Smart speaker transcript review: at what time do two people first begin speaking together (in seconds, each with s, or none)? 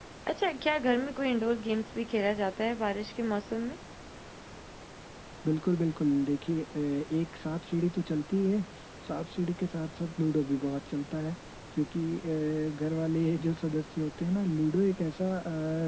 none